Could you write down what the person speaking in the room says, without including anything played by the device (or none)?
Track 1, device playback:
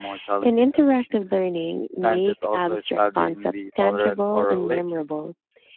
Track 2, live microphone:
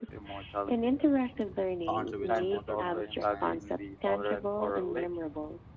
contributes to modern marine science.